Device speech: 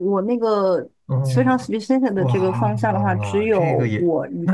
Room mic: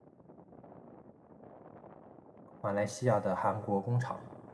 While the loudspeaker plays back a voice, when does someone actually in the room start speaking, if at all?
2.6 s

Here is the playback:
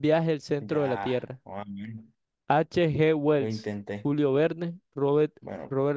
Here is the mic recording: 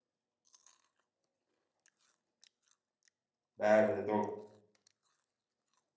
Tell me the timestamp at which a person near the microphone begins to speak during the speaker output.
3.5 s

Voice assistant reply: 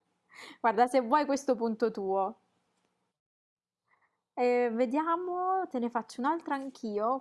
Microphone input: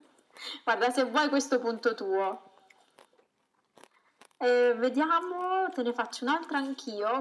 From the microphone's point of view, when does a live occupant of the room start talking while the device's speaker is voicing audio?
none

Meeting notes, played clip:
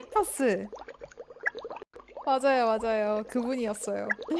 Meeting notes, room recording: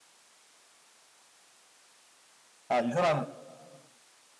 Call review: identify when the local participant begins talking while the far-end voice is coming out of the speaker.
2.7 s

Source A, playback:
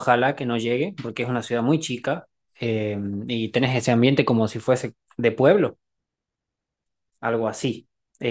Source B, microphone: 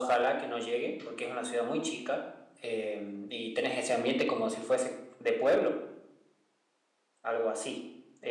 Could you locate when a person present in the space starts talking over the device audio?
none

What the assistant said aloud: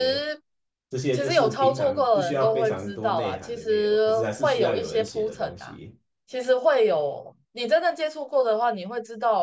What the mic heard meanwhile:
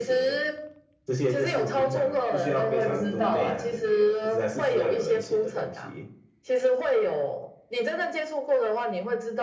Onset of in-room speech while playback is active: none

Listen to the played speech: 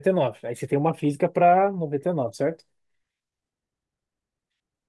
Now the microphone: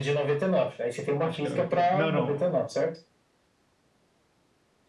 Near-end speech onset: 1.2 s

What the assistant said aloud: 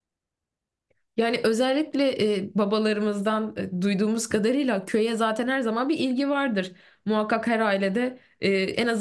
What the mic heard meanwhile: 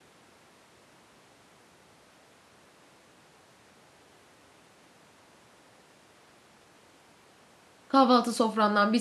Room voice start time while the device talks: 7.9 s

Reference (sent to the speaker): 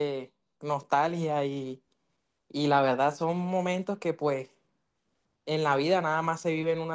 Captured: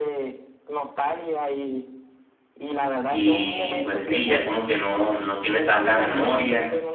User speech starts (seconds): 3.1 s

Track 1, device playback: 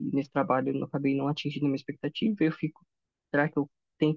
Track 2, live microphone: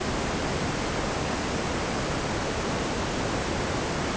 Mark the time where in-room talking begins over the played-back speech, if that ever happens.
none

